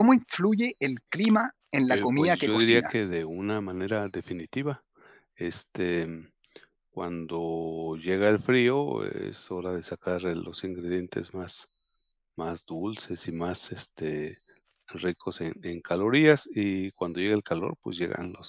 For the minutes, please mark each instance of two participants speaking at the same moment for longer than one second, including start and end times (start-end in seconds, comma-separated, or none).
1.9-3.1